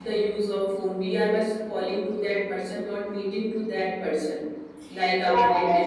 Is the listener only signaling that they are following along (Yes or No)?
No